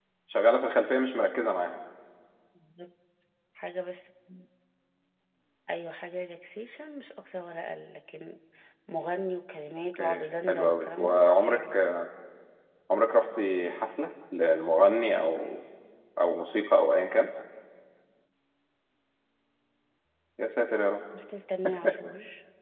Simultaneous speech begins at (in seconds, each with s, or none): 9.9 s